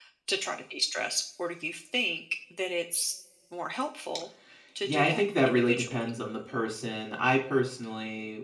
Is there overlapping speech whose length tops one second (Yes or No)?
Yes